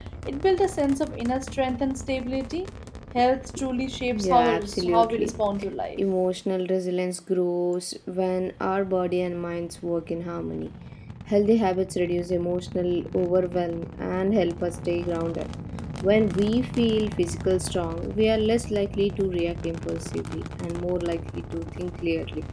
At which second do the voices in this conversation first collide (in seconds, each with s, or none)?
4.1 s